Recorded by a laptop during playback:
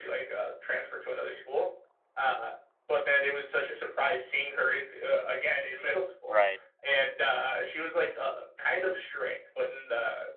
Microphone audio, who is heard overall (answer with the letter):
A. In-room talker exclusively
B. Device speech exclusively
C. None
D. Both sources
D